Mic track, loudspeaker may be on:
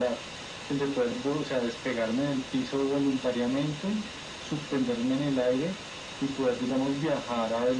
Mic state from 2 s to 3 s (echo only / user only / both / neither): echo only